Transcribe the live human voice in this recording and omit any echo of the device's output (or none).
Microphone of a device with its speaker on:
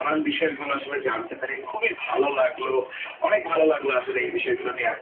none